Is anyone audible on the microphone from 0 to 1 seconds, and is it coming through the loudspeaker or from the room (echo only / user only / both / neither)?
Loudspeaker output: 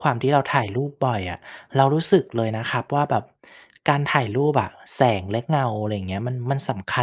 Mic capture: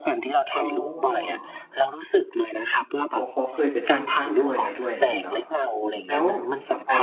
both